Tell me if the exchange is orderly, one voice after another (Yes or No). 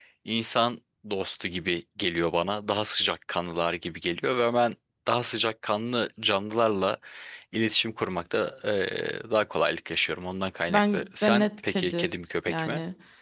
No